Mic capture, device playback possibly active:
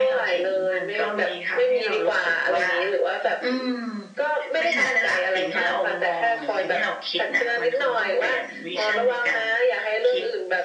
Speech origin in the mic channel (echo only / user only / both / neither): both